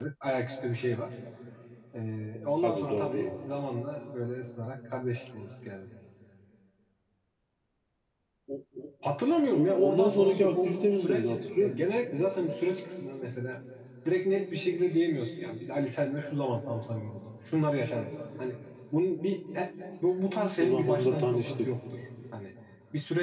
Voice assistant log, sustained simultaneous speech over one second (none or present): present